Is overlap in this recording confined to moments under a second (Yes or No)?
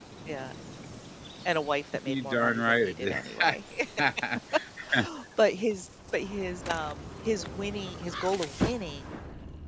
No